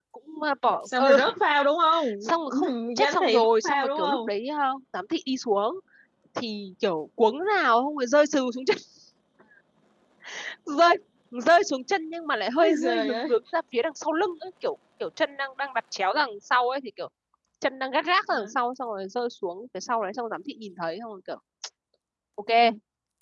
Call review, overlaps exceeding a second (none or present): present